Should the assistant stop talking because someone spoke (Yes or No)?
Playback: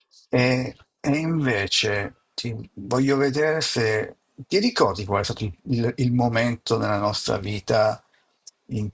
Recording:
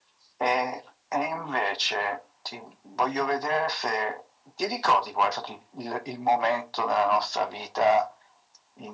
No